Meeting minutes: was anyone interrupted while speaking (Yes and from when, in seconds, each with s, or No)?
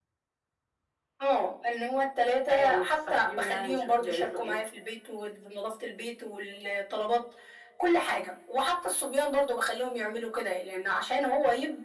Yes, from 2.5 s